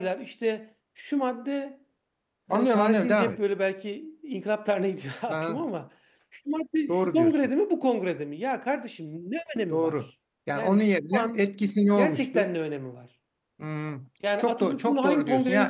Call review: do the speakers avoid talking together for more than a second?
No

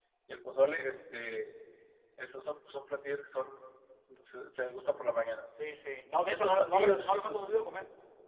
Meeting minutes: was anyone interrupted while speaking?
Yes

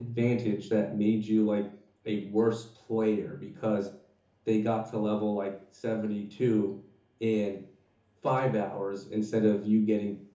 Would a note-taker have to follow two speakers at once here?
No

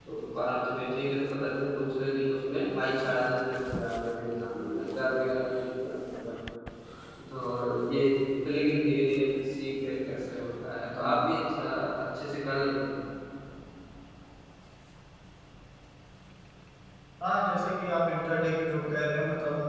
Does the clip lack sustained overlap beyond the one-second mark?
Yes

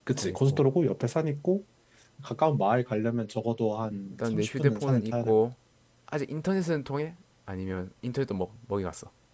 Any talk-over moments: Yes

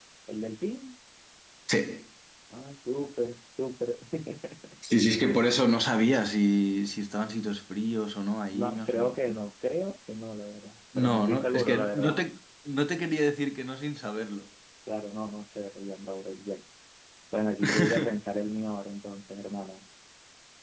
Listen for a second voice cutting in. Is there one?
Yes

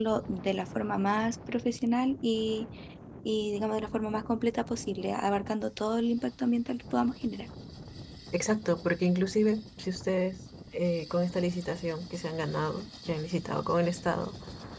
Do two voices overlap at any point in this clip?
No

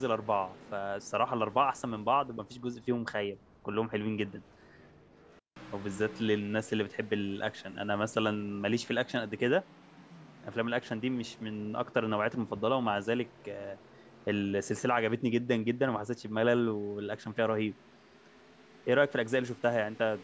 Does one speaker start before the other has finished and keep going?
No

